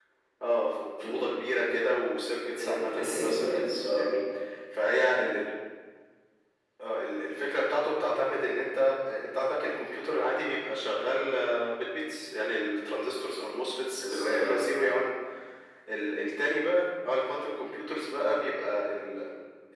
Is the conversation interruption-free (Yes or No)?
No